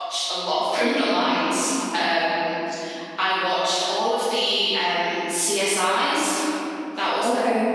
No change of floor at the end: Yes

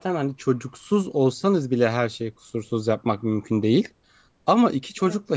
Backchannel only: Yes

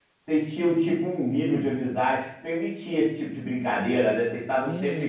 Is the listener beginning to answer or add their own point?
Yes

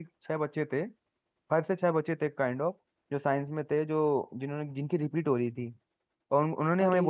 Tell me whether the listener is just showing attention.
Yes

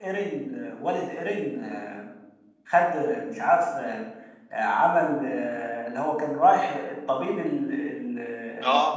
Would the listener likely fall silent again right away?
No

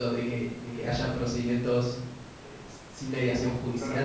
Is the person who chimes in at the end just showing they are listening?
No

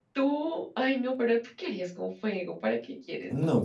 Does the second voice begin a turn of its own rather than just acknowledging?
Yes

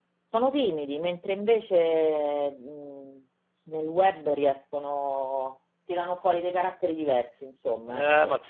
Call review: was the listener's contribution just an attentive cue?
No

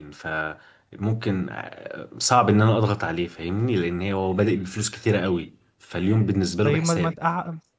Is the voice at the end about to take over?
Yes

